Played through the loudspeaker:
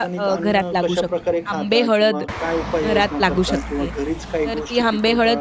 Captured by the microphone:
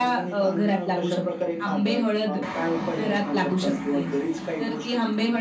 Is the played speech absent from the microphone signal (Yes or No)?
No